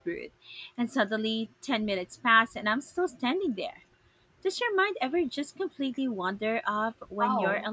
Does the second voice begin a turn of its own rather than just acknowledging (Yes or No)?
Yes